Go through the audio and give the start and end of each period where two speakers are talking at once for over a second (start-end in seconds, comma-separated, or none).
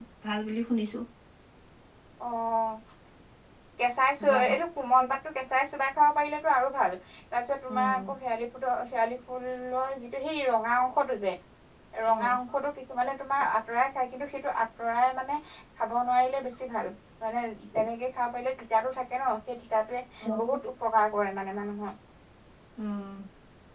none